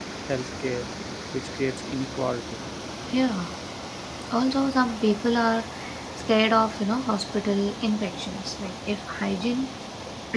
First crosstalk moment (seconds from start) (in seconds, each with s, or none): none